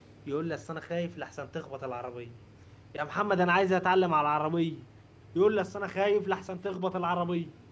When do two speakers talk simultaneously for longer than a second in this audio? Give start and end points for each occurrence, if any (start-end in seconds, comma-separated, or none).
none